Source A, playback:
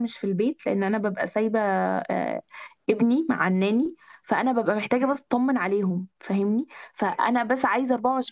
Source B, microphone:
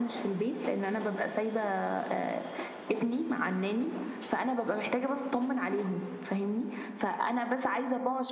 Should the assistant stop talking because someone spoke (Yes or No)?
No